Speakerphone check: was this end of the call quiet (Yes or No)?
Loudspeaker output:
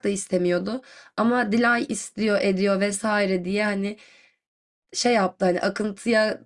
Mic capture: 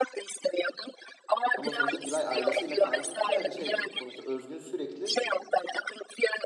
No